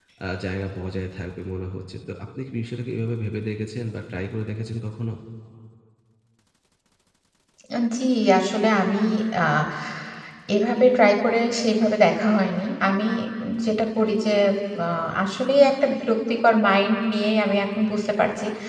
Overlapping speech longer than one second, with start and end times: none

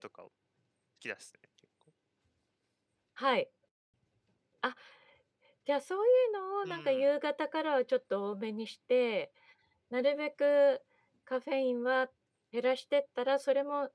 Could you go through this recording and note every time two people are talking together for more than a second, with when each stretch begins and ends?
none

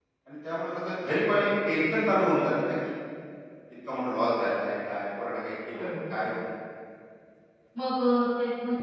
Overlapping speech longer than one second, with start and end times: none

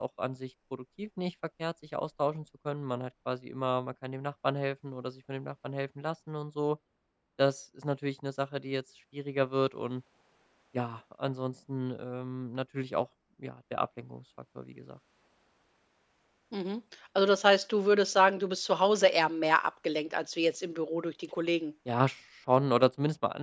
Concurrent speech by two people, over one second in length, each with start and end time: none

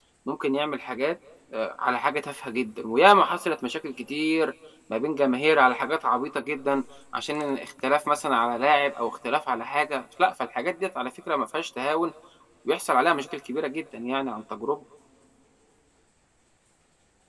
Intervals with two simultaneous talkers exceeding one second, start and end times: none

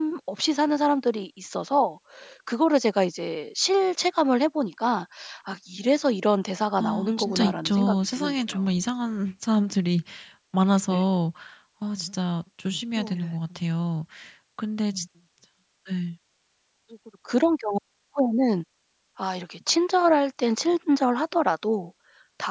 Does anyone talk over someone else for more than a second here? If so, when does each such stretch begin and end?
6.8-8.6

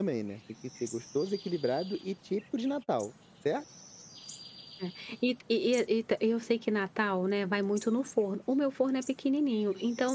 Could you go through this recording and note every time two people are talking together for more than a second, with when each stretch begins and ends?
none

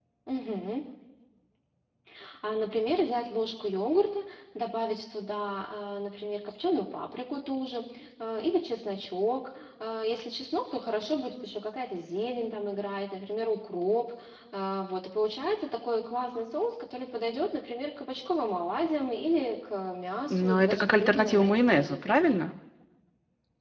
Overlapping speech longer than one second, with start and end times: 20.3-22.5

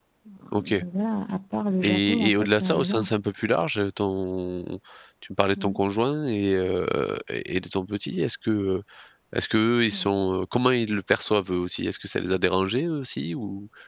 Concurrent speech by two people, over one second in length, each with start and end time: 1.8-3.1

